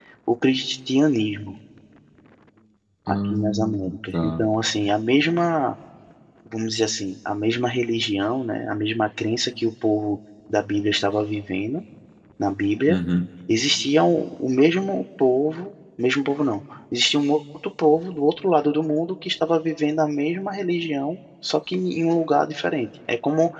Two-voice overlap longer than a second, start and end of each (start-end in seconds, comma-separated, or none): 3.1-4.5